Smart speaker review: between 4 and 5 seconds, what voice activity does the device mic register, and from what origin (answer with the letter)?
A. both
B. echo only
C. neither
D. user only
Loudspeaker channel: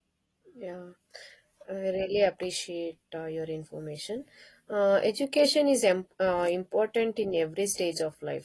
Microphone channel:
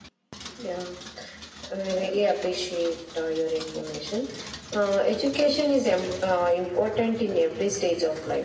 B